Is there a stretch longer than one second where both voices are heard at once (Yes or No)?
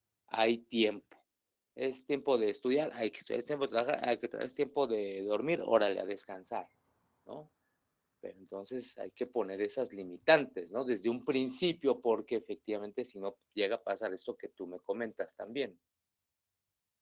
No